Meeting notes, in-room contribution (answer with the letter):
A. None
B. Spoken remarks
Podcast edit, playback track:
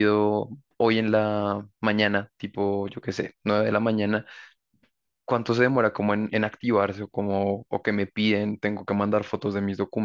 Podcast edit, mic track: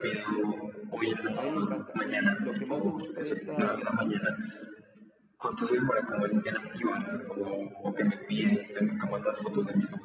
B